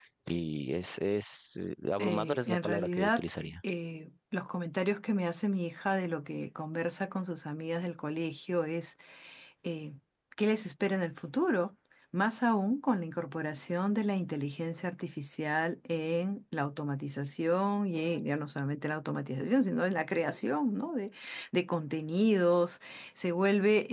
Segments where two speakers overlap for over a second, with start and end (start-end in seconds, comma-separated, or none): 2.0-3.5